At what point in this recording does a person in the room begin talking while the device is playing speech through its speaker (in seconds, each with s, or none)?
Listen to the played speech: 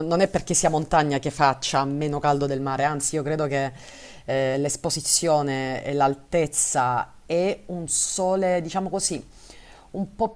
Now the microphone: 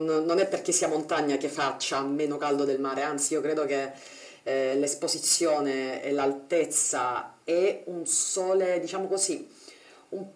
none